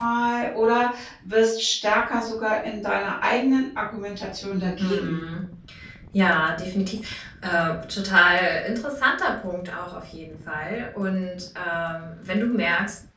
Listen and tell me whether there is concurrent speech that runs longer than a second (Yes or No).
No